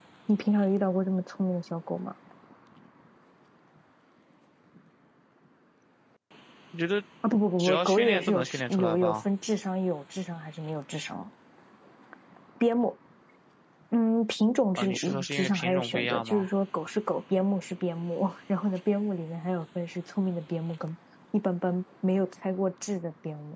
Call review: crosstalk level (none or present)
present